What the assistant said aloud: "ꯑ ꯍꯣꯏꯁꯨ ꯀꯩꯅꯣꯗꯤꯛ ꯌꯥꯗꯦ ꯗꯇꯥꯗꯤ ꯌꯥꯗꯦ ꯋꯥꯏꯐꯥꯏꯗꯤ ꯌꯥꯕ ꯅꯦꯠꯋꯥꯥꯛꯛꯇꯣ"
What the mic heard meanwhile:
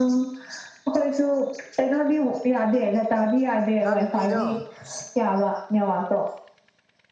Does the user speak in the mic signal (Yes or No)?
Yes